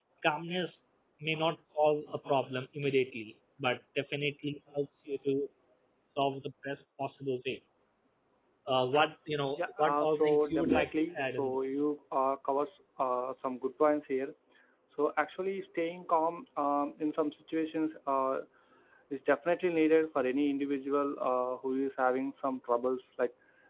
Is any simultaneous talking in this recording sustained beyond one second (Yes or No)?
Yes